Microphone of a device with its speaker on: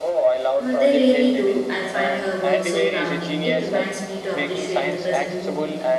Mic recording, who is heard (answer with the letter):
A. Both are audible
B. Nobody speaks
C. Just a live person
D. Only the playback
A